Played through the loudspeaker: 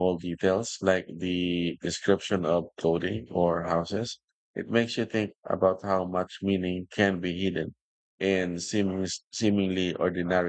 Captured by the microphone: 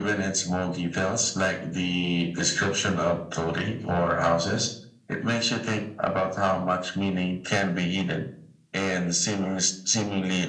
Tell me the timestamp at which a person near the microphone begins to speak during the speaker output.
none

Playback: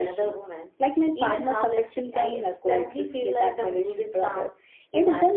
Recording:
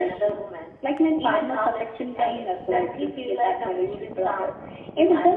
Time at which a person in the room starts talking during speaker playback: none

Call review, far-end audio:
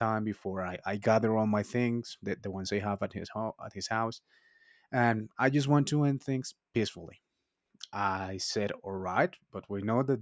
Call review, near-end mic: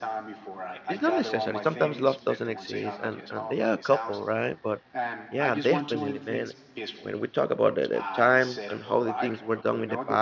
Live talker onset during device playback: 0.9 s

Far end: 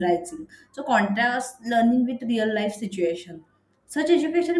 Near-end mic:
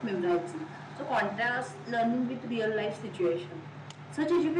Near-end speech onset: none

